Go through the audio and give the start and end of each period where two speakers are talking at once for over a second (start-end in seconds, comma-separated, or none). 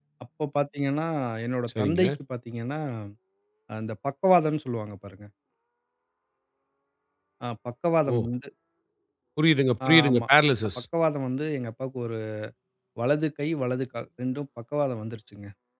none